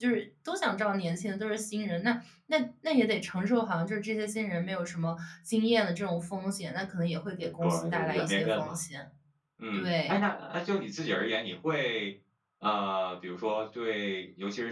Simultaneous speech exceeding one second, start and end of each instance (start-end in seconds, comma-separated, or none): 7.4-8.7